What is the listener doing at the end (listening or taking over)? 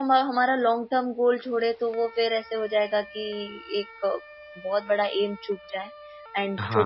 listening